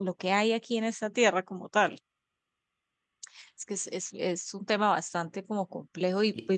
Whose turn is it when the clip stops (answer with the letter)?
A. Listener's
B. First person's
B